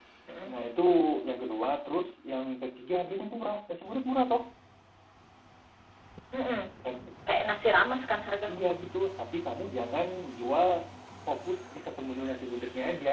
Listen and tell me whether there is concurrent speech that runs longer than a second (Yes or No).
No